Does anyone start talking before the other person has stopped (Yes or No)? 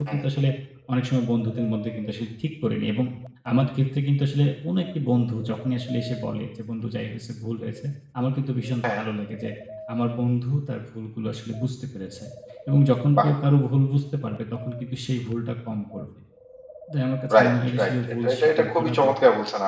Yes